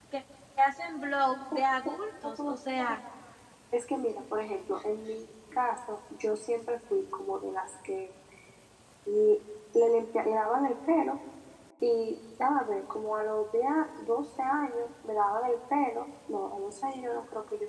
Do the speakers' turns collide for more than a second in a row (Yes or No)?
No